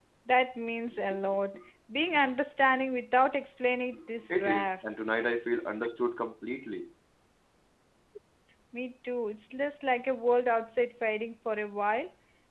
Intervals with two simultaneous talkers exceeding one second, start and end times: none

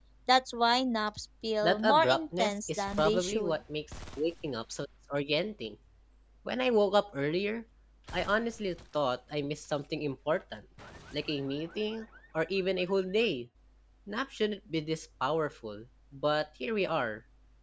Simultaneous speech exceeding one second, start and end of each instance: 1.6-3.6

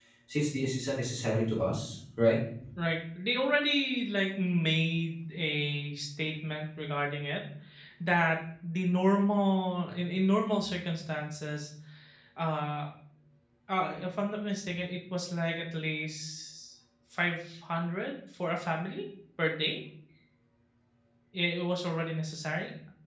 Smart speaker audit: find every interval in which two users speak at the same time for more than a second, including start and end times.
none

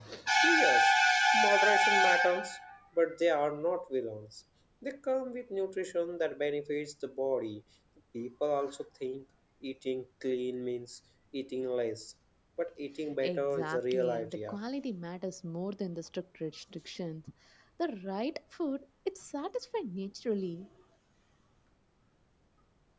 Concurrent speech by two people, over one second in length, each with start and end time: 13.2-14.6

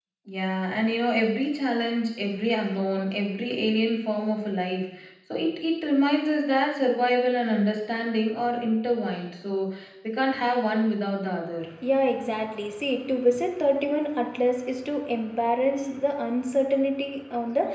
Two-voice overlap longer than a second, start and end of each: none

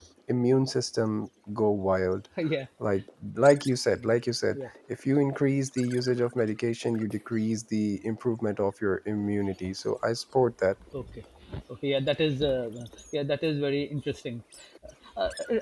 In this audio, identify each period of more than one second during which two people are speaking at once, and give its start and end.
none

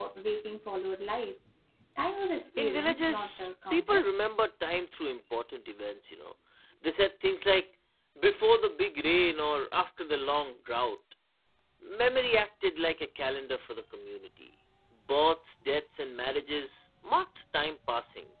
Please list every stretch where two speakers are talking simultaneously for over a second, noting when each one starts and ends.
2.6-4.1

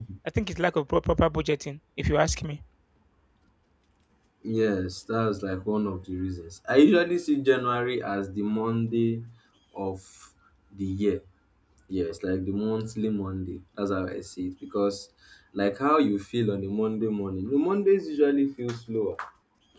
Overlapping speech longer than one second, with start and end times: none

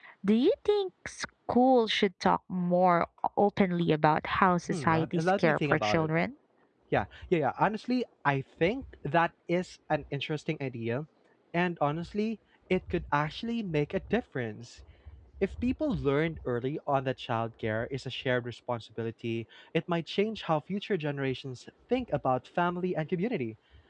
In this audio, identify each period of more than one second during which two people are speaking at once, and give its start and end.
4.7-6.1

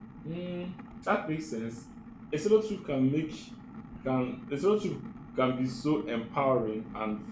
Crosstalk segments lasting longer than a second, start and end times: none

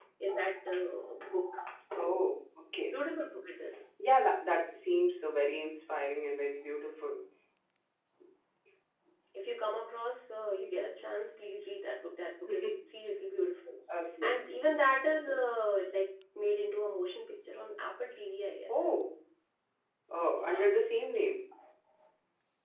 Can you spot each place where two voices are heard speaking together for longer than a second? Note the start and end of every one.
none

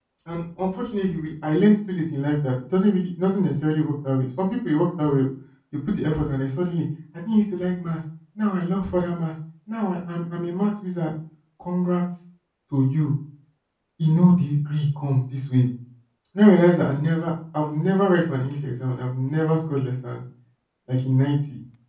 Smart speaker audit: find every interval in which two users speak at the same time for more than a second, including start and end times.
none

